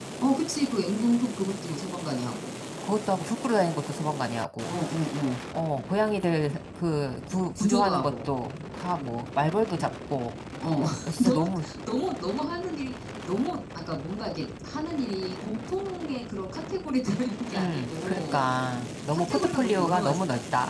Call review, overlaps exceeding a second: present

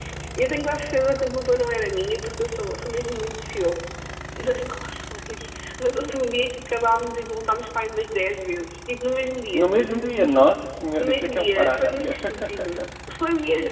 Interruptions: present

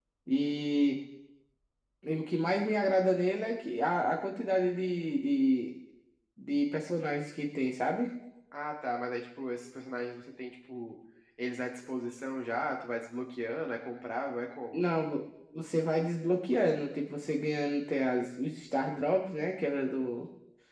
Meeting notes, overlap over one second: none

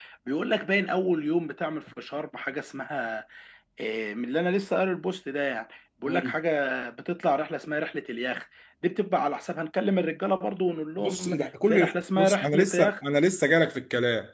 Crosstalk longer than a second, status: present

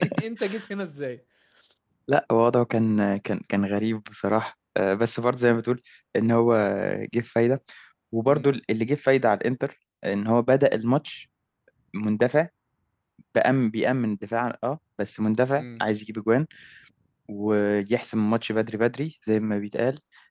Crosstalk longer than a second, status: none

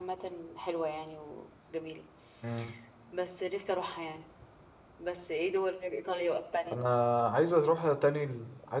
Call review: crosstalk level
none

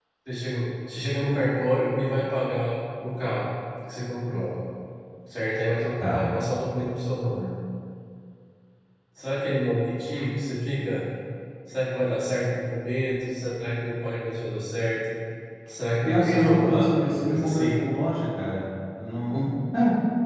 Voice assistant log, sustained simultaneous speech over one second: present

